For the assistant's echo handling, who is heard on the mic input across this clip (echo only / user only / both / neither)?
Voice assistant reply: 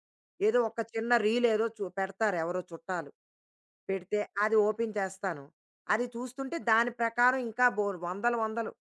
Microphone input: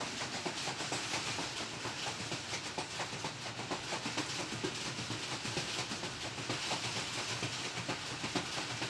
neither